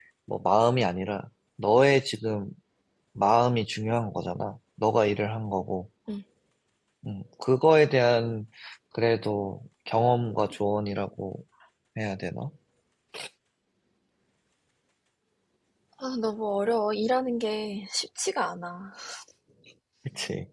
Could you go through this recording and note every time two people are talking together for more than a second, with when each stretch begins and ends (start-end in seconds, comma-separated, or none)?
none